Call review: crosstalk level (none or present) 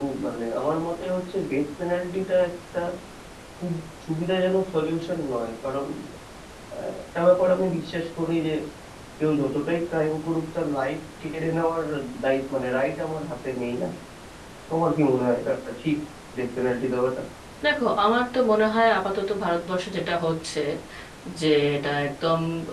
none